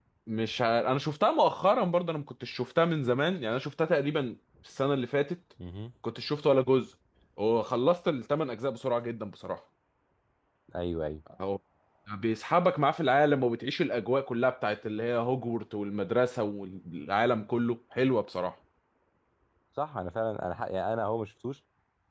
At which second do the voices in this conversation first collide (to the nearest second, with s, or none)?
none